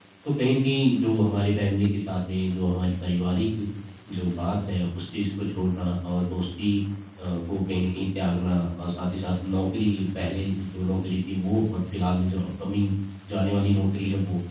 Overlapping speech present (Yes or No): No